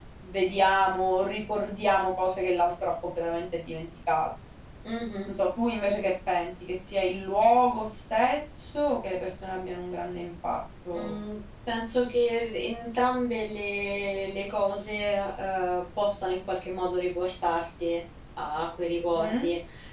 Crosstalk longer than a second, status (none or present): none